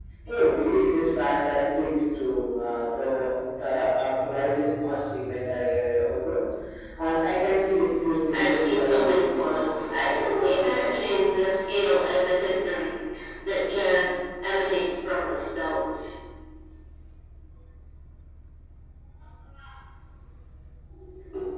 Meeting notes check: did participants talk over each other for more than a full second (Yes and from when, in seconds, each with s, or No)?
Yes, from 8.3 s